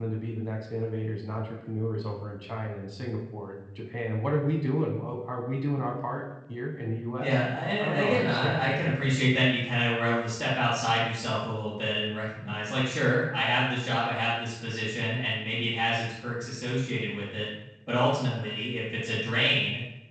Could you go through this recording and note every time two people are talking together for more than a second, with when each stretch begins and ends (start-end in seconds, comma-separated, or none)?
7.8-9.2